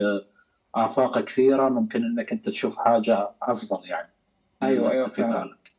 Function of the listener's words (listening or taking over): taking over